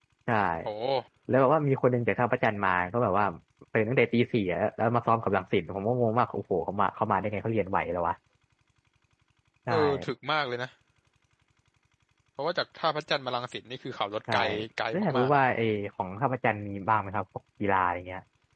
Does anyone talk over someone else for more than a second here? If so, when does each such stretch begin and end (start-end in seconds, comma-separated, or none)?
none